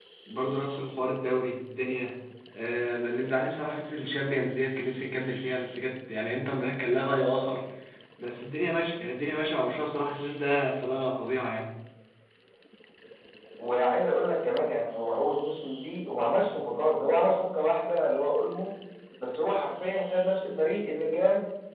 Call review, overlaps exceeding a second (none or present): none